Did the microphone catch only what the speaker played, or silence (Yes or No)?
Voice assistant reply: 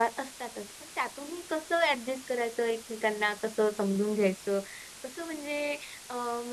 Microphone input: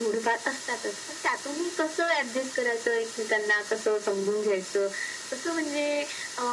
Yes